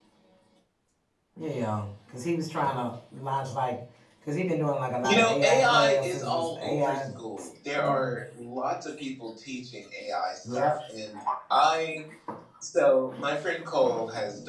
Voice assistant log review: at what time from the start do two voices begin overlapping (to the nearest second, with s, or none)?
5 s